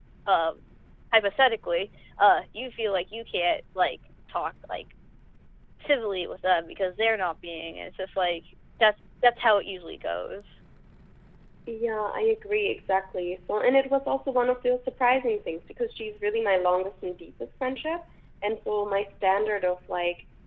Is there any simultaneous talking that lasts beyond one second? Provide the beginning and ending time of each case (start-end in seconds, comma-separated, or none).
none